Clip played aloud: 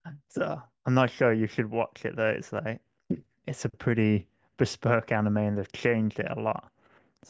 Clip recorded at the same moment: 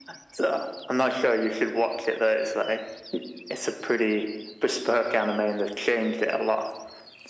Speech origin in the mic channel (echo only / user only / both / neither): echo only